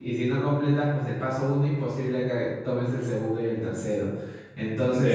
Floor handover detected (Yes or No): No